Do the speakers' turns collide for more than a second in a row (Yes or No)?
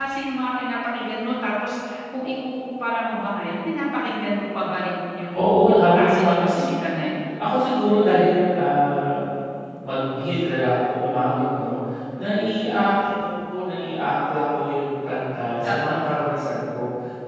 Yes